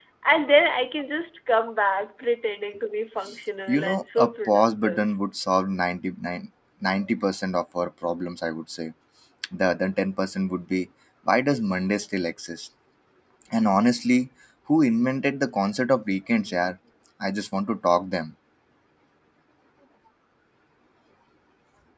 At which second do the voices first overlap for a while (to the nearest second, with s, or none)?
4 s